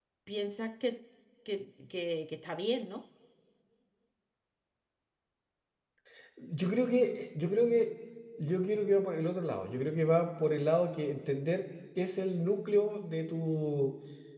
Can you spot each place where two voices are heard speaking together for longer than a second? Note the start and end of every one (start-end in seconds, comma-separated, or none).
none